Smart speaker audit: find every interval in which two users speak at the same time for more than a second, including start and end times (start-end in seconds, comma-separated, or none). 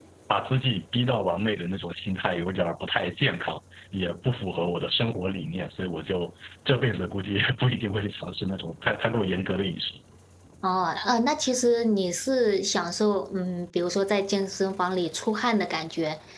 none